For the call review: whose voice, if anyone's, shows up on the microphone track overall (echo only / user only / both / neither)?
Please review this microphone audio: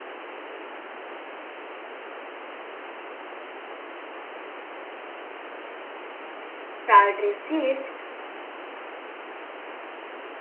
user only